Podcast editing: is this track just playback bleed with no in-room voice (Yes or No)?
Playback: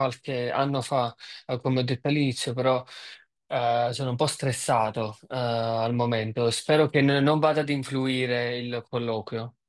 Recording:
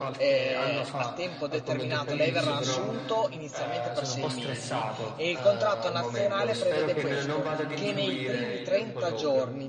No